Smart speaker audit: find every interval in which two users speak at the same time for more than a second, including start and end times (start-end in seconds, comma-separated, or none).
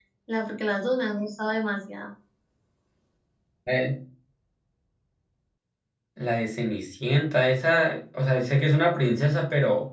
none